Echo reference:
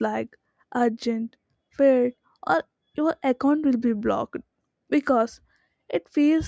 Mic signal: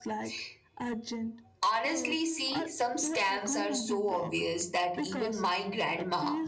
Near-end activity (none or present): present